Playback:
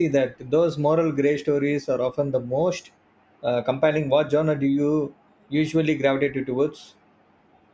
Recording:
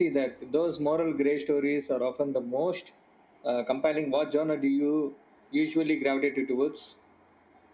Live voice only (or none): none